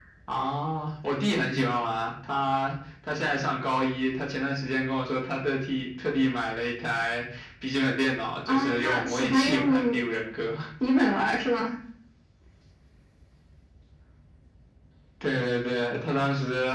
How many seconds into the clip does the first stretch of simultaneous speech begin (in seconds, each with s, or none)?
8.5 s